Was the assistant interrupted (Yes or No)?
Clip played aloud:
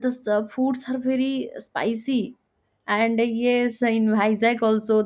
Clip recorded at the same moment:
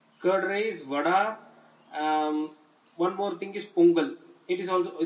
Yes